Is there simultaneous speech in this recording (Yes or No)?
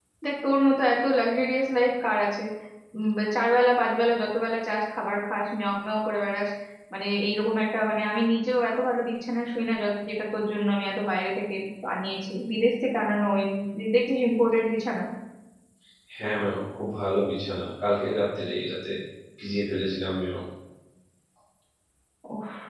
No